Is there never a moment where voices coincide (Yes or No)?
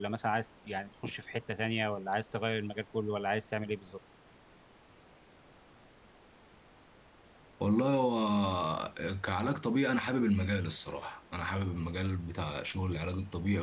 Yes